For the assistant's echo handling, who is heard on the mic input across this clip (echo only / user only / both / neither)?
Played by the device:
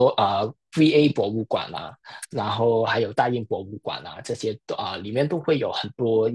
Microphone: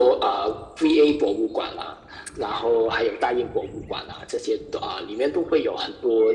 echo only